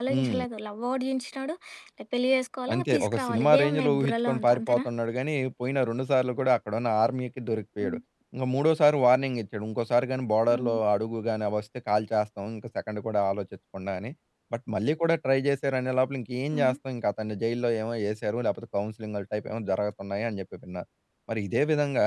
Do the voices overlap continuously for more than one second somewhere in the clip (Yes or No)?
Yes